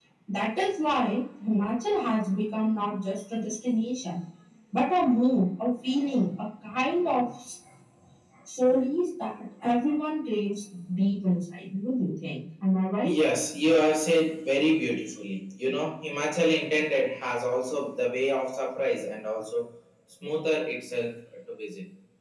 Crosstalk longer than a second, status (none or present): none